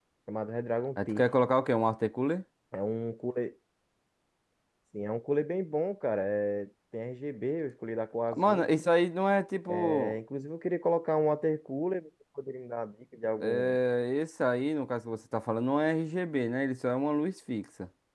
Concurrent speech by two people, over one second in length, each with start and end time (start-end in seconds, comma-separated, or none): none